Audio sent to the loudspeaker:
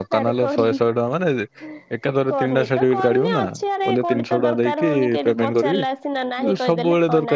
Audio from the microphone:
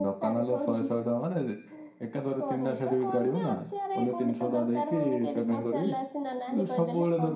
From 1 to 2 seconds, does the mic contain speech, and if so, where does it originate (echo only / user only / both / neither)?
echo only